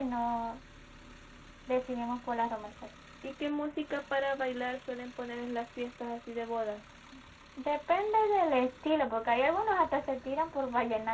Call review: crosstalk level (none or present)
none